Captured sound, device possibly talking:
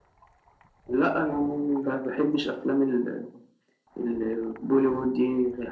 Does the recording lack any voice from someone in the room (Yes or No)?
Yes